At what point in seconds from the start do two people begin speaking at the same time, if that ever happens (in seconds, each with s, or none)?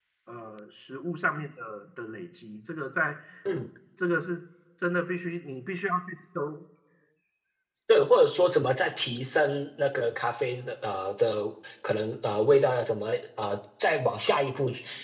none